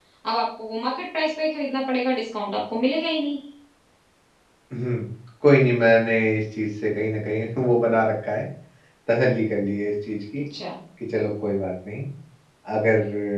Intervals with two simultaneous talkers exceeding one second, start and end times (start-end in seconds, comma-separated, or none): none